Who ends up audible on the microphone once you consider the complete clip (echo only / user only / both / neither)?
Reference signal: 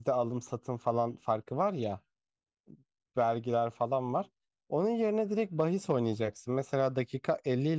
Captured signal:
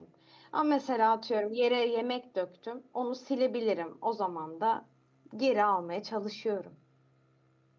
user only